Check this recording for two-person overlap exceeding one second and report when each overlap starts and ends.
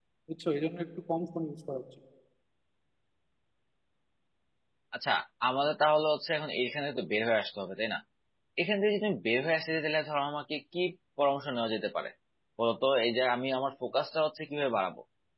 none

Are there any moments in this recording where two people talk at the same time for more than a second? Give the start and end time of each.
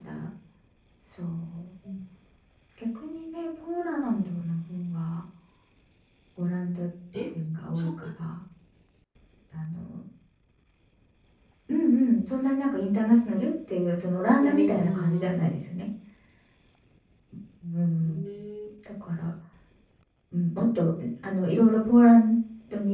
14.3-15.5

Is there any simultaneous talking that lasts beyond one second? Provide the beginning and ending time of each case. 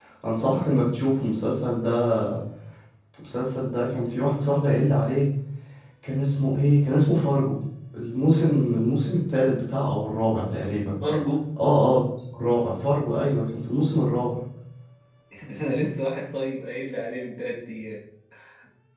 none

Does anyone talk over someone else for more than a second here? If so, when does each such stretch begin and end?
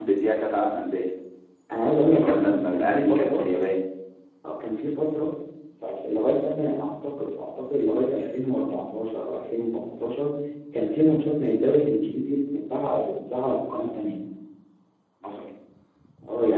2.1-3.5

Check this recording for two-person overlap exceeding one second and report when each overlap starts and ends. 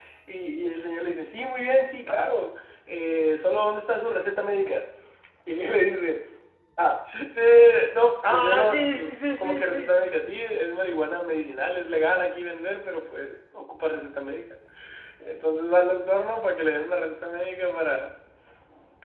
8.3-10.0

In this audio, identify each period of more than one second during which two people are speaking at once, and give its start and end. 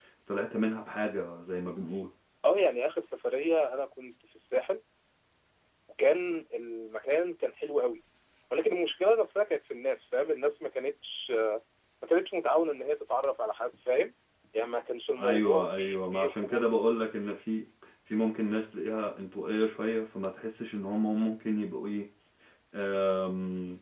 15.2-16.7

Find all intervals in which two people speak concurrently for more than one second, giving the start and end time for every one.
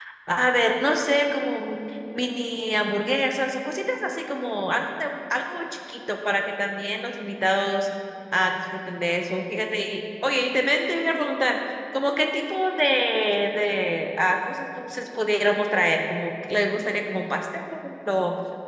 none

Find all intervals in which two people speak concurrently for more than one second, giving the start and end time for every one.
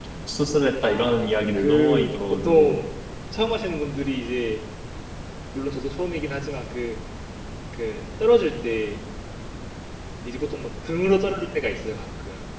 0.8-2.8

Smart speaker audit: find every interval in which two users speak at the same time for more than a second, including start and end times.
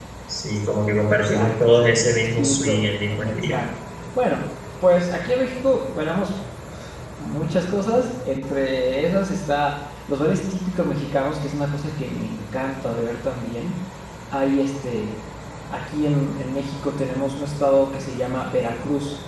1.1-3.6

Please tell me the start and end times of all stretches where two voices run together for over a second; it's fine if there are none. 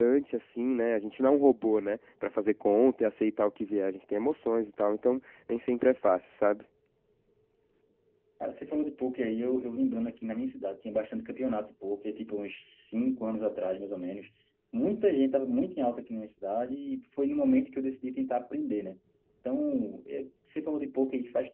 none

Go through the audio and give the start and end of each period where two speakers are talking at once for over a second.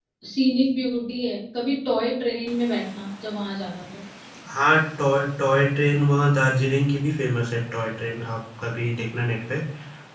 none

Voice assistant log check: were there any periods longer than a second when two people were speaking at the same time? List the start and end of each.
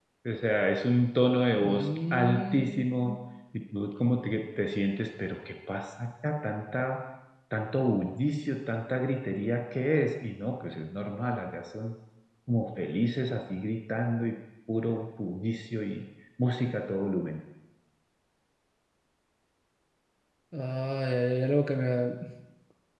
1.6-2.8

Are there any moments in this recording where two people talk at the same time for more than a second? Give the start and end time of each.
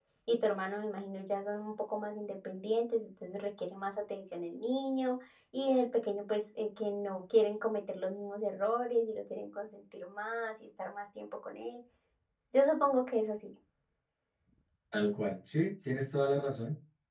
none

